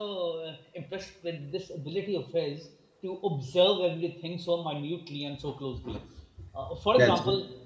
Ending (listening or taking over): listening